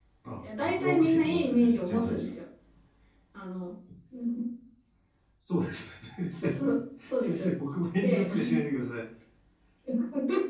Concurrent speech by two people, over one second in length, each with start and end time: 0.6-2.3

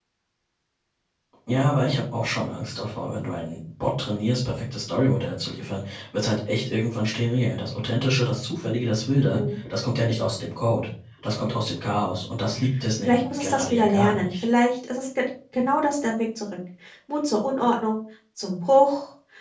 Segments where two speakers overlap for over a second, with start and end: 13.0-14.4

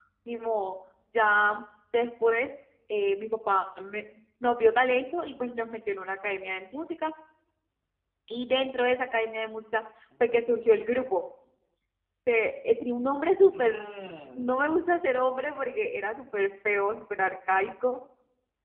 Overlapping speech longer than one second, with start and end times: none

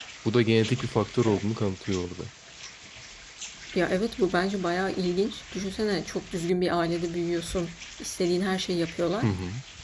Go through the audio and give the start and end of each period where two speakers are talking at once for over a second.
none

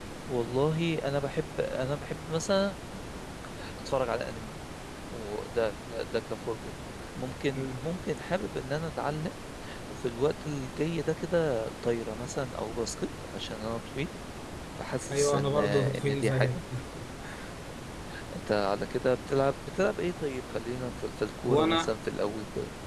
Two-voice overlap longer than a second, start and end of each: 15.1-16.5

